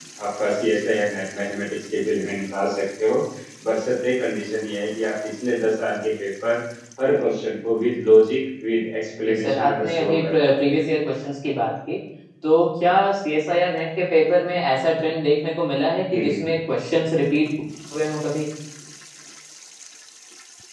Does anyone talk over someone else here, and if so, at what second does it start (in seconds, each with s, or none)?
9.3 s